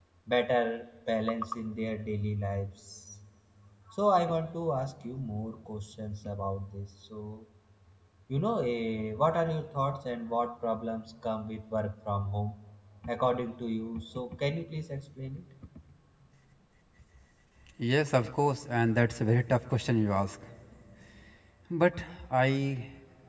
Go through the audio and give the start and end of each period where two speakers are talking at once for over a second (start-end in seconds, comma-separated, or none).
none